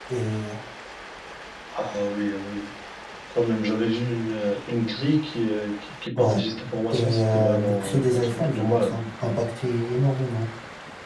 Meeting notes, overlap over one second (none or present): present